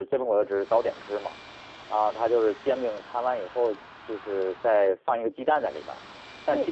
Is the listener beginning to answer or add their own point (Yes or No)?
Yes